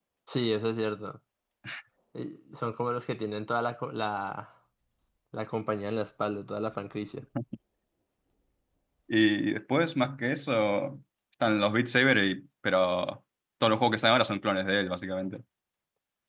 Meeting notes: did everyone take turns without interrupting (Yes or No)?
Yes